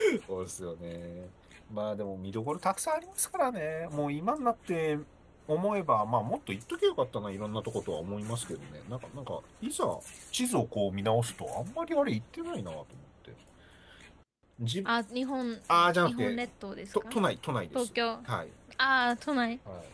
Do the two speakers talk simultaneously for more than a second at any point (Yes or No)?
No